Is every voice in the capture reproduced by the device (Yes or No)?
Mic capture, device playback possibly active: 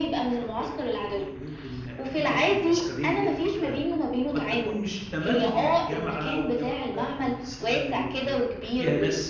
No